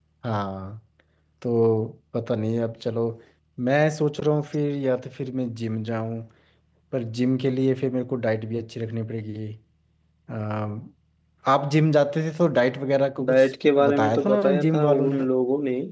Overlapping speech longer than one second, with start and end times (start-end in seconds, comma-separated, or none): 13.3-15.2